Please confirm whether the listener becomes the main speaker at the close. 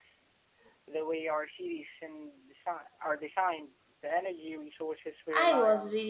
Yes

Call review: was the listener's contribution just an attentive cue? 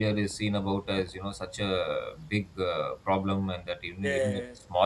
Yes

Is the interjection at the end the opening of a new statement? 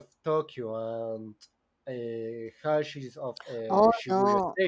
Yes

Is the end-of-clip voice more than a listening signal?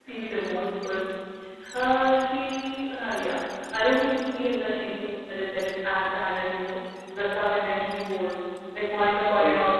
No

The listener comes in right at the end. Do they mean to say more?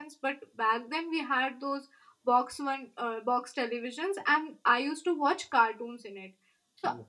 No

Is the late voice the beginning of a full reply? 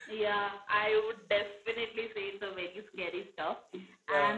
No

